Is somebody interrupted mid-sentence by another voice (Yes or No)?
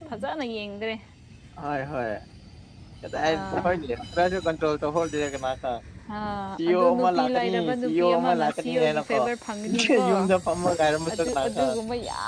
Yes